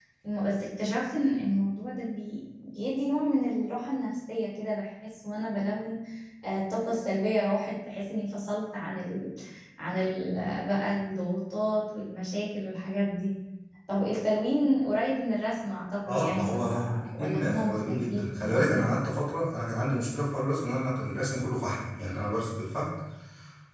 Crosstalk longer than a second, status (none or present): present